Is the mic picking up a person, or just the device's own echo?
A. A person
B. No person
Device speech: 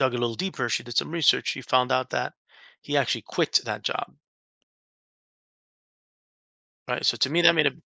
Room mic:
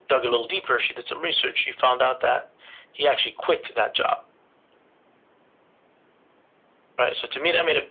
B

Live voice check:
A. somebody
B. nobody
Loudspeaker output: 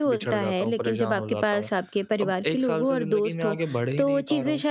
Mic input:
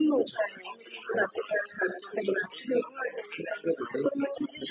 B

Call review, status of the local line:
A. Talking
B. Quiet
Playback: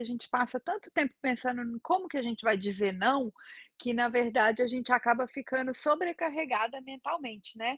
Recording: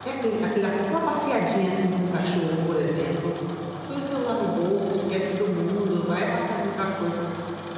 A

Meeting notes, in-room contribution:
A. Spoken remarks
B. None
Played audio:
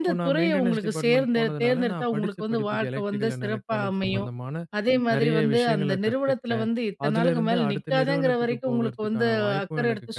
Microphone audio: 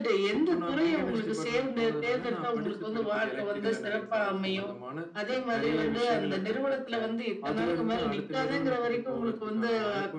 B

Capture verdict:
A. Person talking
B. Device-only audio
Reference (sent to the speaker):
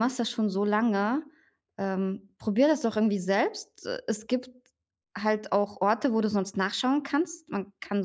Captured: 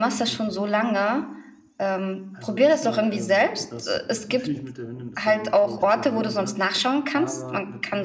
A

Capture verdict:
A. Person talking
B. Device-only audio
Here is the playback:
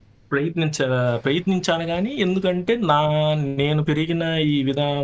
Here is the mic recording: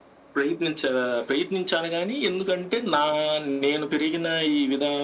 B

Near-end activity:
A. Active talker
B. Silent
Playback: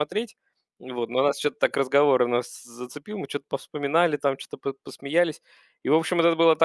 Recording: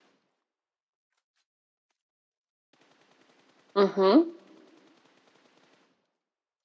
A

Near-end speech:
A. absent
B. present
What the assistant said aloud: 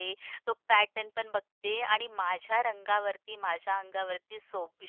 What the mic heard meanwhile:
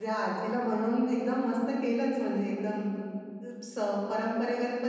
B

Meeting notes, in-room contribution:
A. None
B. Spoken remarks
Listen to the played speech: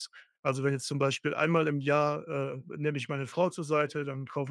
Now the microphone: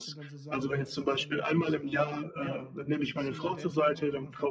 B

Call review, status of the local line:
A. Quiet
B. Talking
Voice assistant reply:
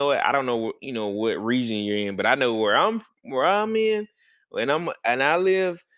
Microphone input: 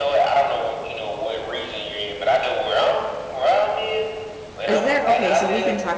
B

